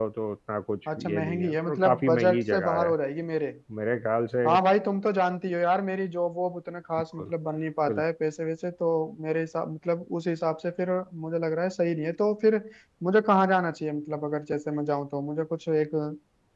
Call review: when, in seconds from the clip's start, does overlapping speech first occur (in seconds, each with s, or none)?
0.9 s